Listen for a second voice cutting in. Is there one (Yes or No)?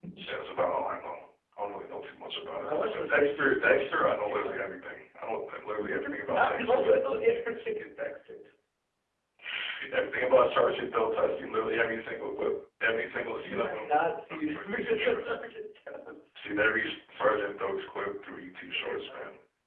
Yes